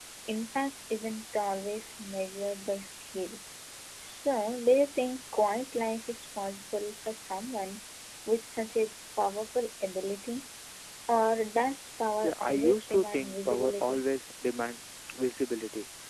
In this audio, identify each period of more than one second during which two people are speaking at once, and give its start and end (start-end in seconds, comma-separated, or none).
12.2-14.0